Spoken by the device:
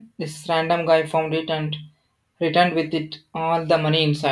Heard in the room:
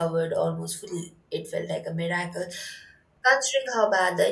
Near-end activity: present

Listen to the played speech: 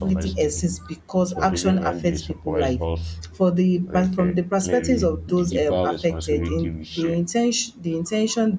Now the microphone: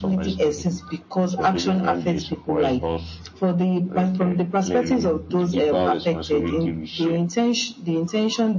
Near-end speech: none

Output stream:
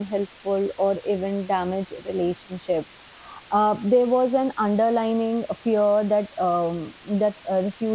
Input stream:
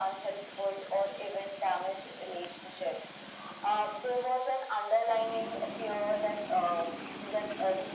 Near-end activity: none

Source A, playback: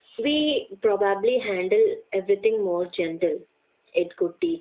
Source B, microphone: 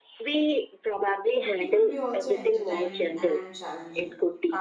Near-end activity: present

